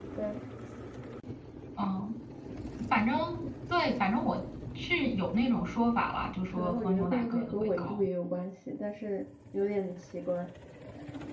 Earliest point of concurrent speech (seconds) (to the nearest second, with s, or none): 7 s